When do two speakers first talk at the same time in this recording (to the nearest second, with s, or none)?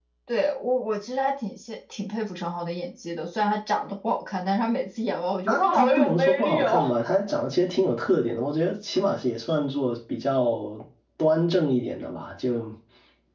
5 s